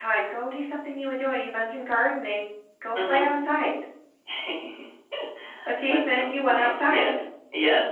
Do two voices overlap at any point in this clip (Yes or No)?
Yes